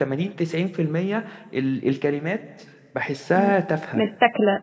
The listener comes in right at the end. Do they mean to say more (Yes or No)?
Yes